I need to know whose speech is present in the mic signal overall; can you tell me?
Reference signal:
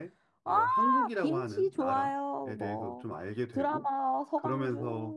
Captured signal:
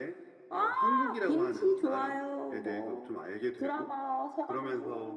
echo only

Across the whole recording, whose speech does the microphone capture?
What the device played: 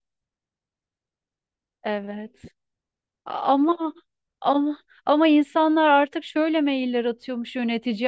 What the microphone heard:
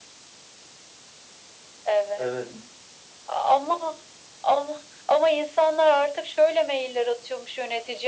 both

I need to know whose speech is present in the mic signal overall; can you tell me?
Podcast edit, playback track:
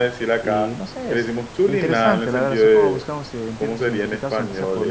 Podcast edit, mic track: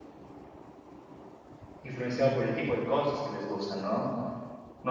user only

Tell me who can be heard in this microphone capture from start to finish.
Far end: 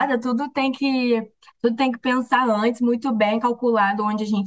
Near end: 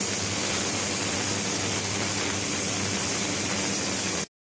neither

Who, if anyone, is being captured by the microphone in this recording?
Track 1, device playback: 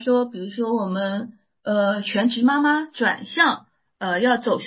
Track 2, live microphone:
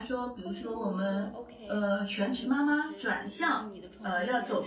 both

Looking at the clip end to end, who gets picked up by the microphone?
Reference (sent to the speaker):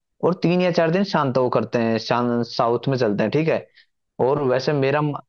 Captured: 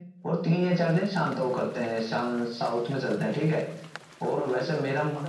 both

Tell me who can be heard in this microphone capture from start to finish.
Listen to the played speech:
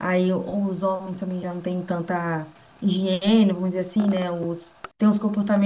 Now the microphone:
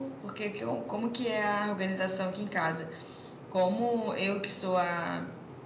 user only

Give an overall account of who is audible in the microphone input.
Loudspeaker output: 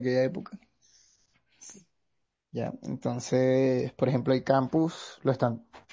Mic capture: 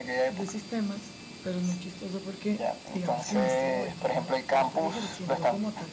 both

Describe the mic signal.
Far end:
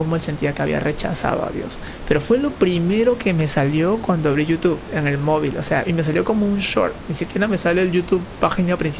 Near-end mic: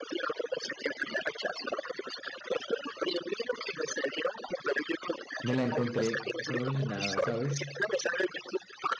both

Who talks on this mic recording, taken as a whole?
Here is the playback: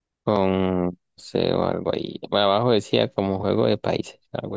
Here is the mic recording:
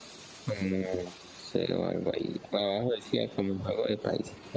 echo only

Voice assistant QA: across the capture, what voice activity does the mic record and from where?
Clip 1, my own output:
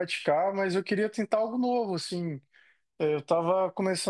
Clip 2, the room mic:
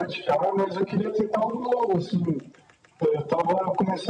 echo only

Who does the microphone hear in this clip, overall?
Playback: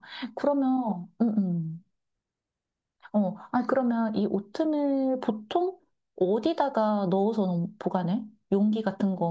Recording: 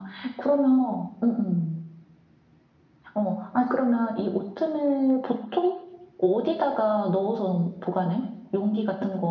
echo only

